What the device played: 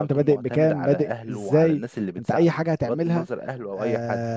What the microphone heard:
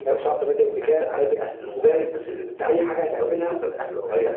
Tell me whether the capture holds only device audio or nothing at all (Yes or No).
Yes